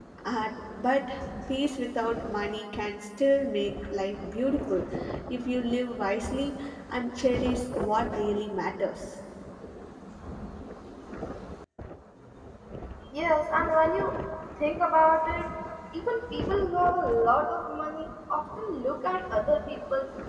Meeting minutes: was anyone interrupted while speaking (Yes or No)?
No